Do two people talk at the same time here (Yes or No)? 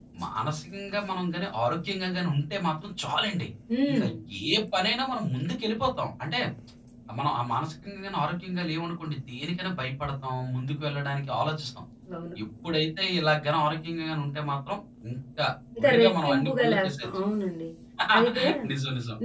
Yes